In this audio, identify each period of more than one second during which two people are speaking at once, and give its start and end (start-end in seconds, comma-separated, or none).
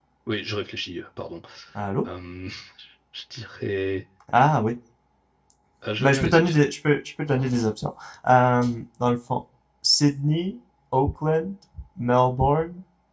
none